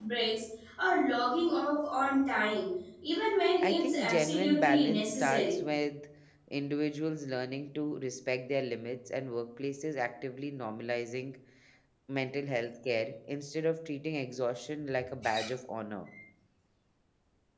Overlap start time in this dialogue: 3.6 s

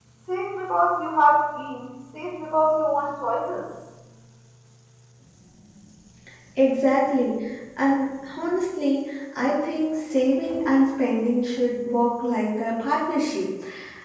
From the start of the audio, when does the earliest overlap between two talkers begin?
none

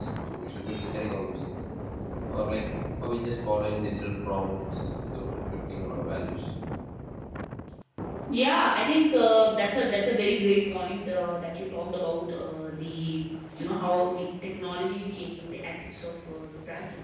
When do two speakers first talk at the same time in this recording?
none

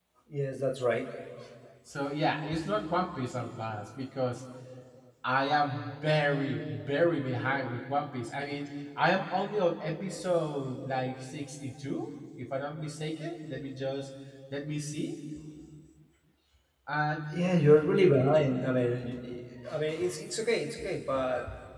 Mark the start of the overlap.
none

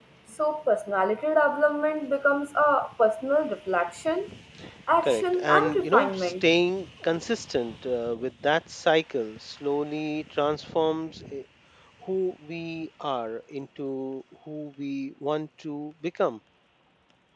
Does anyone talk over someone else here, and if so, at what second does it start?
5.0 s

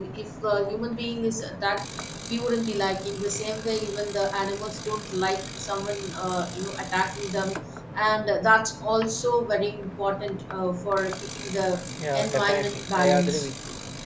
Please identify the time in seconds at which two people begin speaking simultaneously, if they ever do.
12.2 s

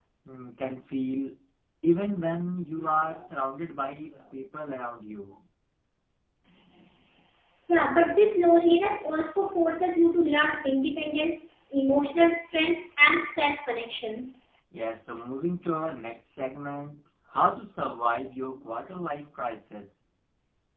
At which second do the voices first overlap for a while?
none

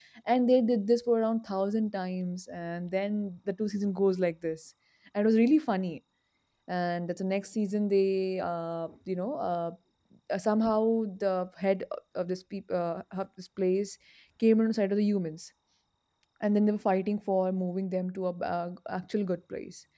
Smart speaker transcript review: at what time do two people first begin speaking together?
none

